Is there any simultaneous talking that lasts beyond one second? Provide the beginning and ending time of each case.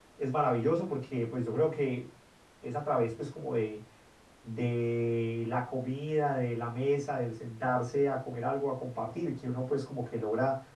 none

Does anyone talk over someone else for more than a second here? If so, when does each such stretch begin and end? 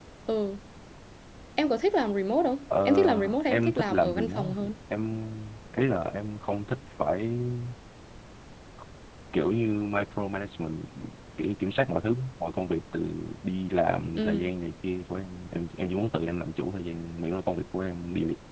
2.9-4.7

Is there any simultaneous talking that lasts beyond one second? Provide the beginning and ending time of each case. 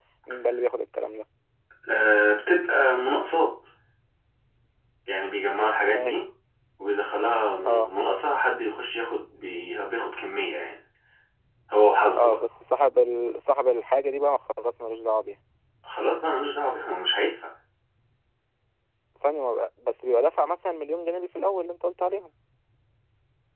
none

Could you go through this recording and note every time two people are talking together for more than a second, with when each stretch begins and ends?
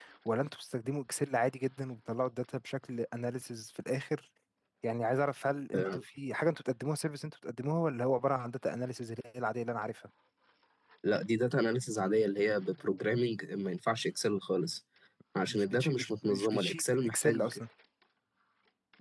15.5-17.6

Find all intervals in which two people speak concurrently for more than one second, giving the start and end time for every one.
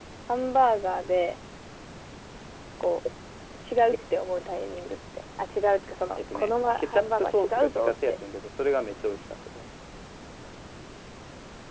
6.2-8.1

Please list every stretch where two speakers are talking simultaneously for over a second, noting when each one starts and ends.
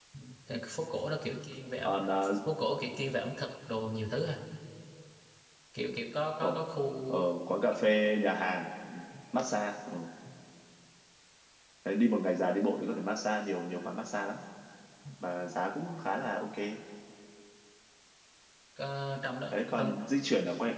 none

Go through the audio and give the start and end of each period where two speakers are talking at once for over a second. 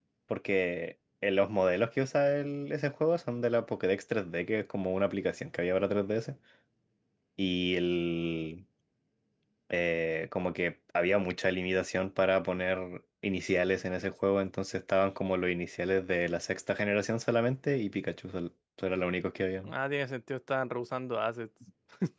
none

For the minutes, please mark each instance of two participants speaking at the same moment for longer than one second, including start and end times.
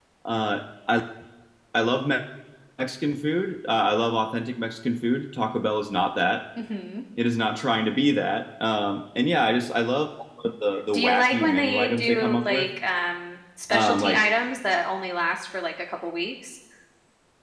10.9-12.7

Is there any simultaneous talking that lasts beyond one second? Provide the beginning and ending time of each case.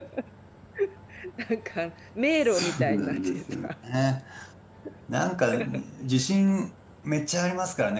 2.3-3.7

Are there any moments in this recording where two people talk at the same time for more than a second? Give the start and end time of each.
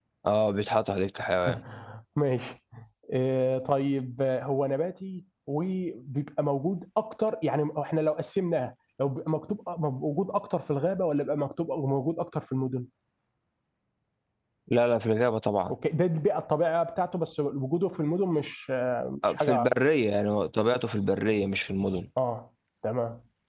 none

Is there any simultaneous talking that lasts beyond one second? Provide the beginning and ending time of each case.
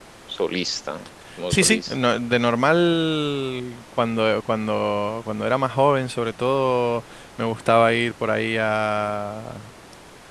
none

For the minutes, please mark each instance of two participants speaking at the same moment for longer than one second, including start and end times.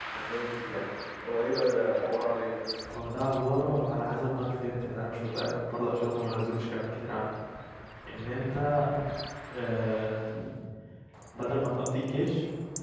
none

